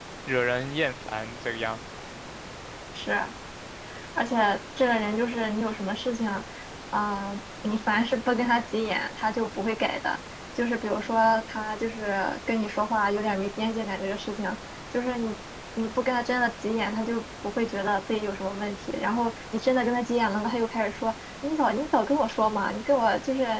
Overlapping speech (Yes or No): No